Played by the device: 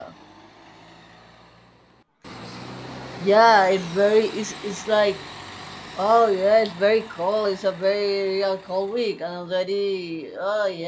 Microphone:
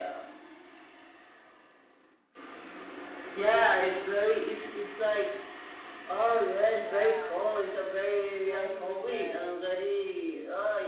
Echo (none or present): present